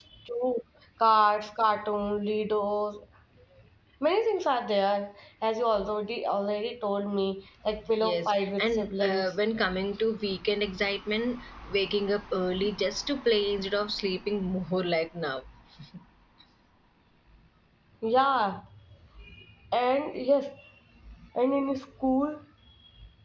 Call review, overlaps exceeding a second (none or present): present